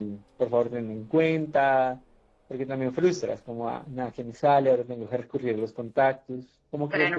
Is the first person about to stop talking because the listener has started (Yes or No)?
Yes